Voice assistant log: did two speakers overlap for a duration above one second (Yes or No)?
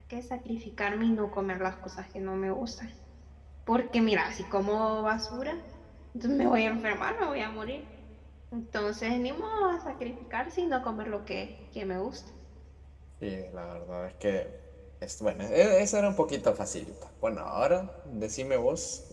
No